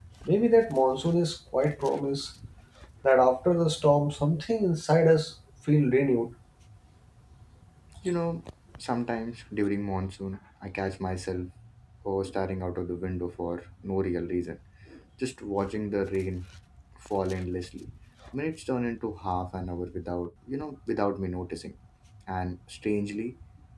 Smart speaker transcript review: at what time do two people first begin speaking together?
none

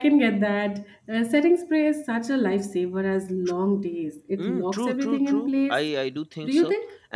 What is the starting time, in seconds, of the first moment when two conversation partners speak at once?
4 s

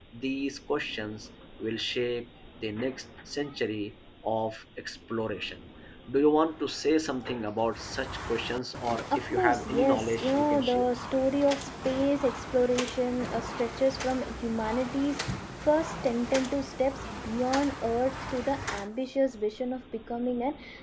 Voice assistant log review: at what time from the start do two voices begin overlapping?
9 s

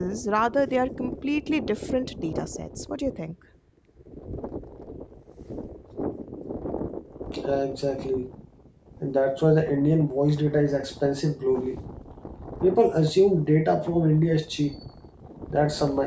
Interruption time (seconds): none

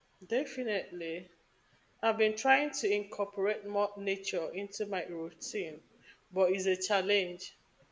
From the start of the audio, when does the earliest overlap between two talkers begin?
none

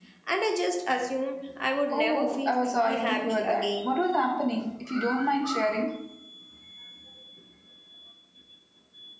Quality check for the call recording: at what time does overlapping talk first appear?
2 s

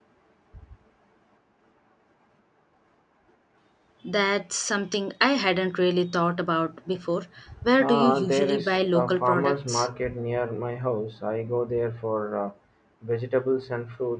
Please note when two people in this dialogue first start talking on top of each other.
8 s

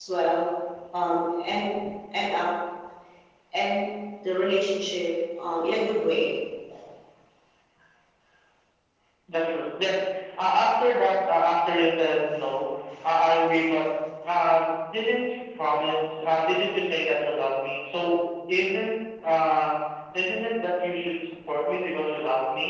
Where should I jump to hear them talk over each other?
none

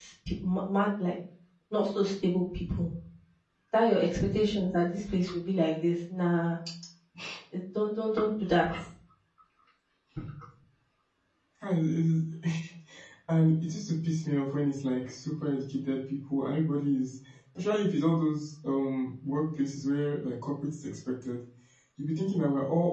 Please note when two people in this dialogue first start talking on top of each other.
none

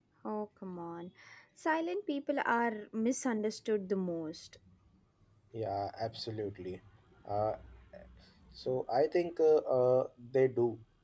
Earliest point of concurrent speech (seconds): none

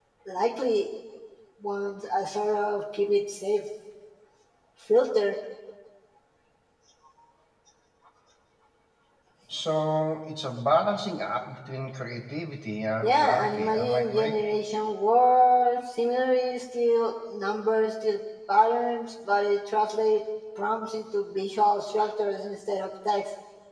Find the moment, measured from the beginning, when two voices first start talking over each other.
13 s

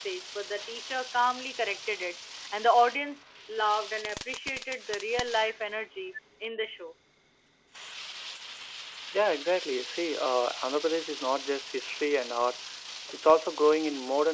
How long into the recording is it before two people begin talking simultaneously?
none

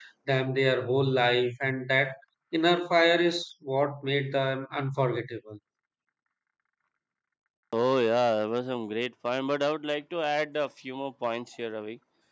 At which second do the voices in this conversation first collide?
none

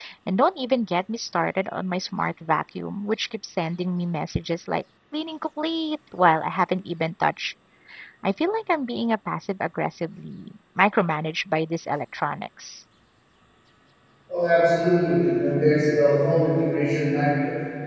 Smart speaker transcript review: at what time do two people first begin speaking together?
none

